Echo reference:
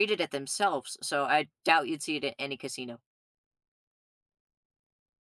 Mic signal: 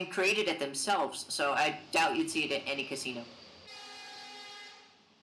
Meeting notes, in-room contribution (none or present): none